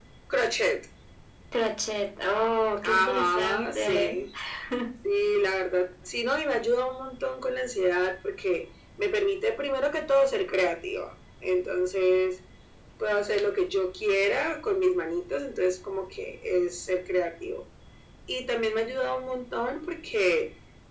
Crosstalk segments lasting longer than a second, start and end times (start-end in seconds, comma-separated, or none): 2.8-4.2